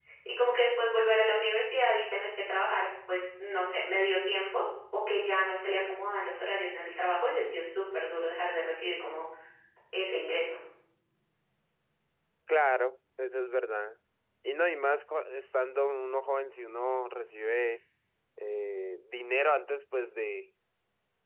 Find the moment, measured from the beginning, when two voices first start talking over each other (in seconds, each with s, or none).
none